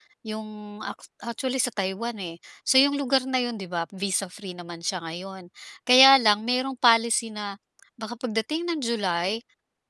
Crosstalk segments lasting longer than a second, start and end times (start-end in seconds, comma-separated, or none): none